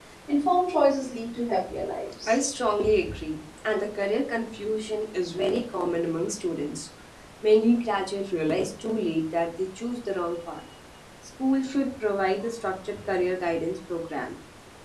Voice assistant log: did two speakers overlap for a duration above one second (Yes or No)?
No